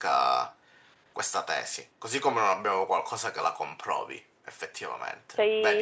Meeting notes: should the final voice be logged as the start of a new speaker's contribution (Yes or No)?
Yes